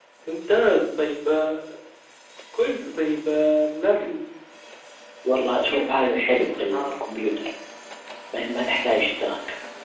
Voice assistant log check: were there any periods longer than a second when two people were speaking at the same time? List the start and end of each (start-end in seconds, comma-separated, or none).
5.7-7.0